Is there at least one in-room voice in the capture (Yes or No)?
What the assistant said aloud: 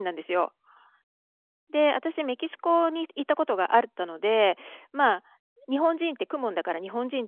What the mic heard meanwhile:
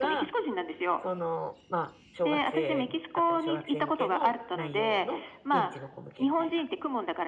Yes